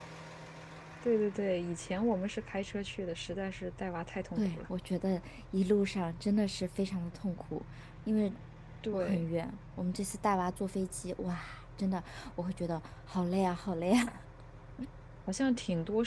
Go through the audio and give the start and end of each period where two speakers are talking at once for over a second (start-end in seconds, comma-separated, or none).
none